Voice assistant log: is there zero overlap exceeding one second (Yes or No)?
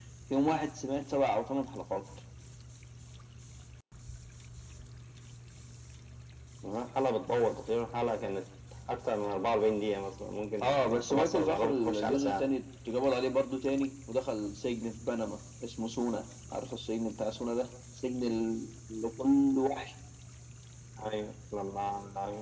No